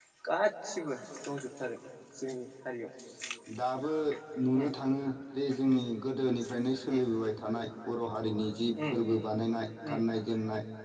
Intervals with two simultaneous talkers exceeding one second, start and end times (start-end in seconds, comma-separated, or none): none